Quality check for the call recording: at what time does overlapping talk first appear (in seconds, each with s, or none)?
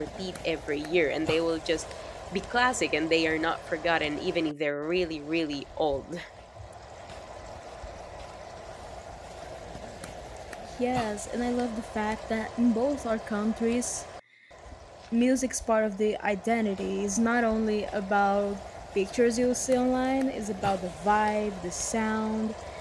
none